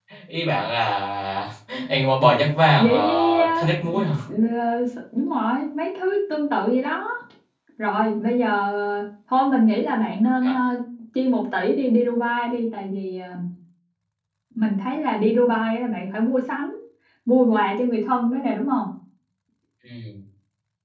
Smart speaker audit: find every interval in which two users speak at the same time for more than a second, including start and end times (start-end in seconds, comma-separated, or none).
2.8-4.0